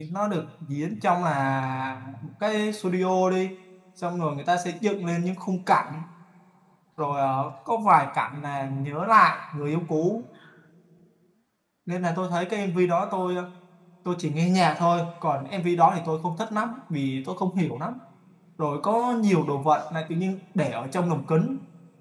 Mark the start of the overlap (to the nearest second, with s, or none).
none